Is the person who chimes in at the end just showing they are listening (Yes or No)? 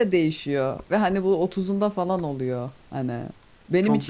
Yes